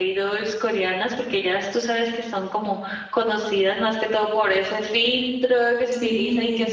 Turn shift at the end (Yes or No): No